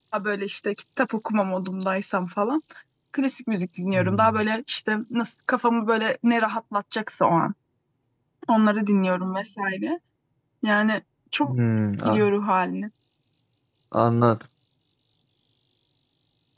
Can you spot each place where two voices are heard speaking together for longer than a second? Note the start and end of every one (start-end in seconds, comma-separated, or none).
none